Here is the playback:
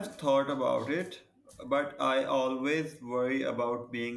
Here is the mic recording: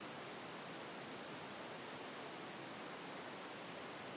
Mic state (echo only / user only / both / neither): neither